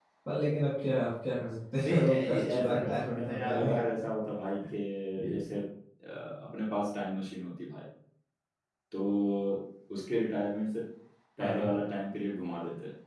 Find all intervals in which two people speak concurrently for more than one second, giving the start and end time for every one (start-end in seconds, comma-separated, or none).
1.8-3.8